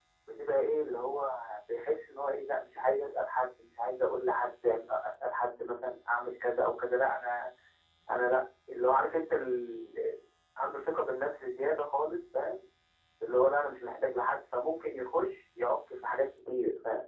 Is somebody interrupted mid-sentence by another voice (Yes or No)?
No